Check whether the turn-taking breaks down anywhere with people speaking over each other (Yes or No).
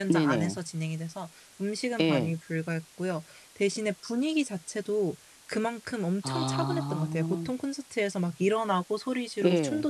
Yes